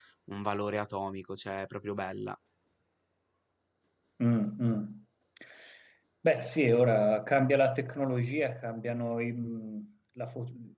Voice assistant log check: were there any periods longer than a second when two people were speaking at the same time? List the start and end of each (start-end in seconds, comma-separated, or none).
none